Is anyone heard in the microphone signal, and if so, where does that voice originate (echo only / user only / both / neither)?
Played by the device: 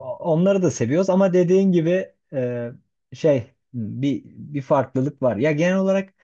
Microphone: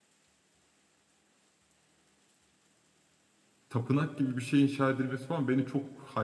user only